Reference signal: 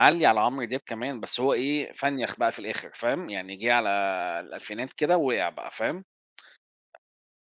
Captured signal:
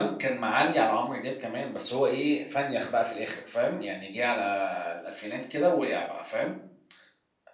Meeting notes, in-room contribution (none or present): none